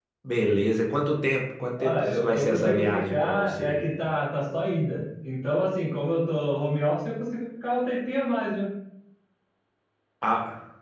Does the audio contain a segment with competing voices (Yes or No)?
Yes